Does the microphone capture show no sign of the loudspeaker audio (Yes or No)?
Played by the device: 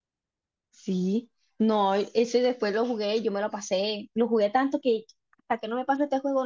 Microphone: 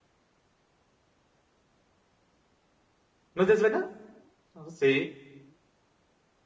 Yes